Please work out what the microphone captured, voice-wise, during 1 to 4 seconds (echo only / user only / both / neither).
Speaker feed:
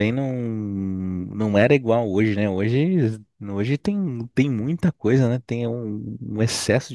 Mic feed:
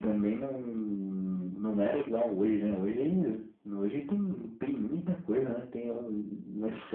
echo only